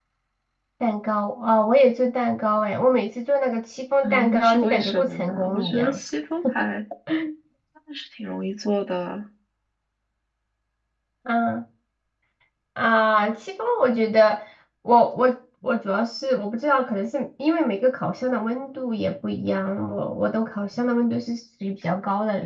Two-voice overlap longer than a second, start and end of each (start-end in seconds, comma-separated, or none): 4.0-6.0